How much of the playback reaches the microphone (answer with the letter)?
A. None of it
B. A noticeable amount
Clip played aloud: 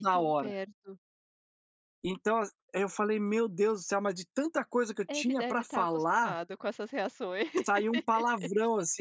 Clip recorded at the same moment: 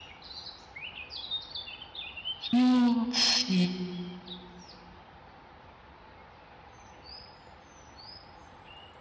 A